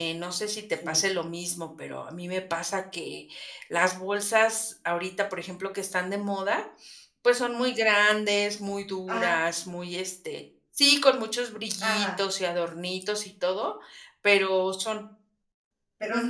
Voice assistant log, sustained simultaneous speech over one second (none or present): none